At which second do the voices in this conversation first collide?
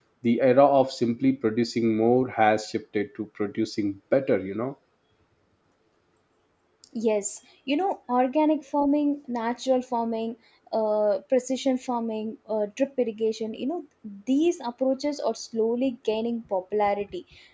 none

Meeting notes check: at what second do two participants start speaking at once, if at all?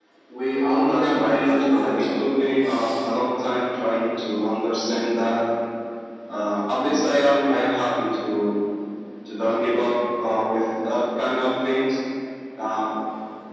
0.8 s

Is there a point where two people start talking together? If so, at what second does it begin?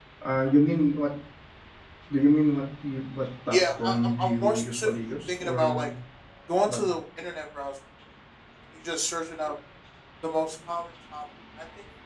3.5 s

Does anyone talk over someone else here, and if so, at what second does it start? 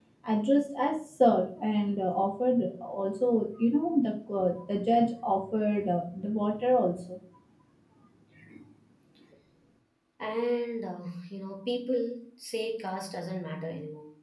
none

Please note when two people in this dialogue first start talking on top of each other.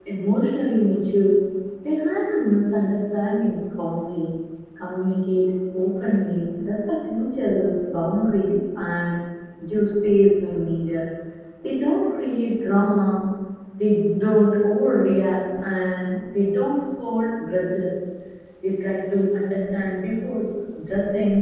none

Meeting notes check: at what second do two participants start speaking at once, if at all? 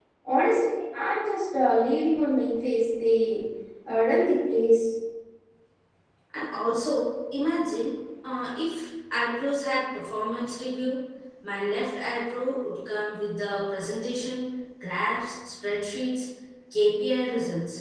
none

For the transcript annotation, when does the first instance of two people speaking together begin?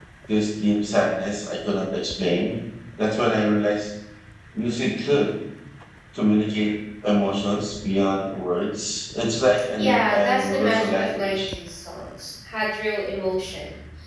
9.8 s

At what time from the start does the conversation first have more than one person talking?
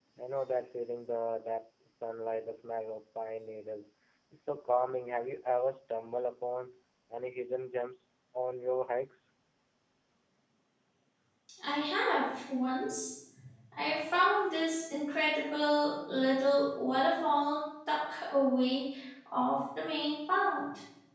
none

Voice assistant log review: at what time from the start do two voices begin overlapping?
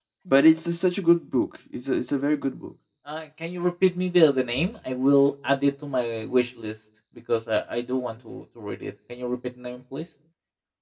none

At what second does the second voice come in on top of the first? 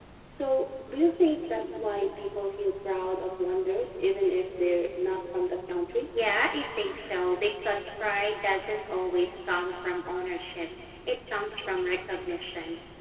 none

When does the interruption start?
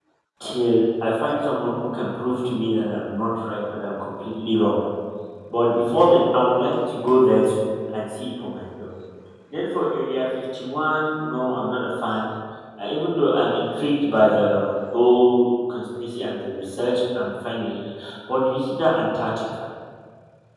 none

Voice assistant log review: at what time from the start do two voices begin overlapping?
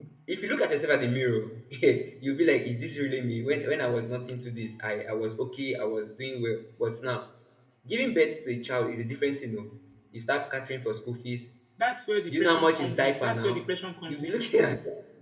12.3 s

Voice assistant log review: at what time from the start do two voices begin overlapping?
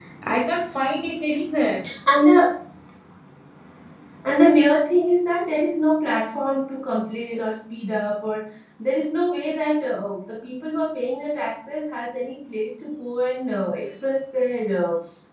none

